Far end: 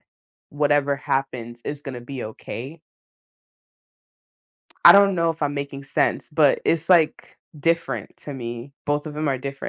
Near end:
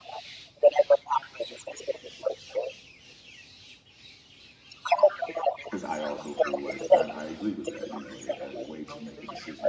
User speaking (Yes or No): Yes